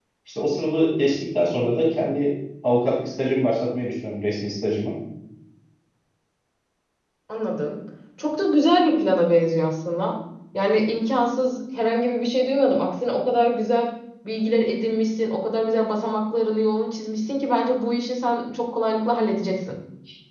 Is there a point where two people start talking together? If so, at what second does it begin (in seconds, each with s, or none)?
none